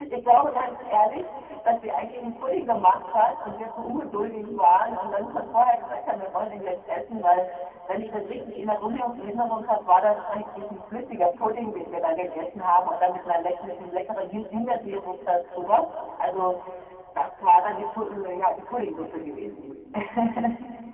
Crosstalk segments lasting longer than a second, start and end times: none

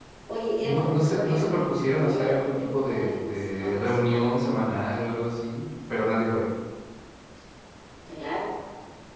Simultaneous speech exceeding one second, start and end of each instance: 0.6-4.4

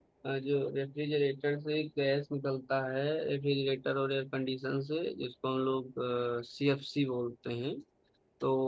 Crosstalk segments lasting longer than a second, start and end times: none

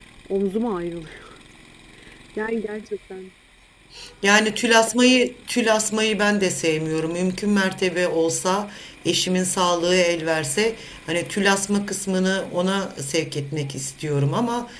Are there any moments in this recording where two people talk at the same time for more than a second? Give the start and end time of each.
none

